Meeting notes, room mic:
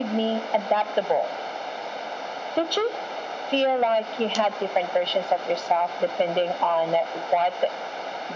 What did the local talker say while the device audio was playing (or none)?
none